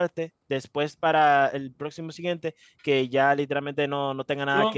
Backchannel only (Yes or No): No